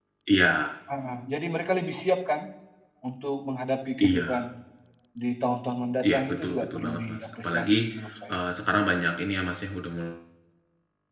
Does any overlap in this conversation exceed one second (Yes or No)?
Yes